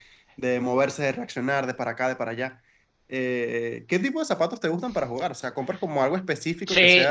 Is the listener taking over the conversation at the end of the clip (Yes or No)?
Yes